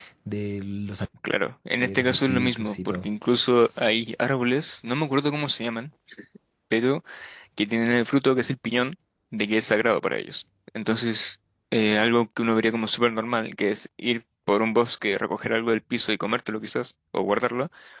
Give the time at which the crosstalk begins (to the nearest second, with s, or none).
2 s